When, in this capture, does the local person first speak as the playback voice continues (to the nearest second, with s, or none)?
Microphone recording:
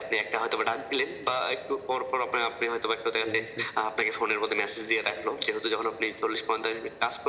3 s